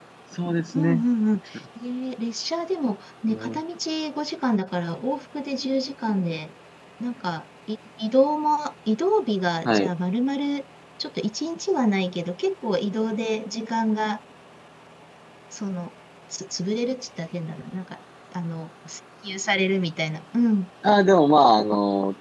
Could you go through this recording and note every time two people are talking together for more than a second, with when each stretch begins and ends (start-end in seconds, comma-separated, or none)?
none